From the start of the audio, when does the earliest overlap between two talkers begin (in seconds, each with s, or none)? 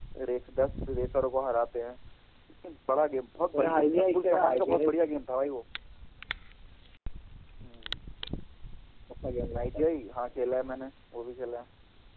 3.5 s